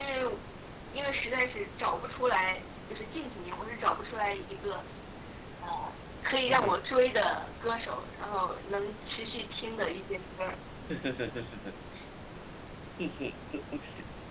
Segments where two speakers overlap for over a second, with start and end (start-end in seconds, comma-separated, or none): none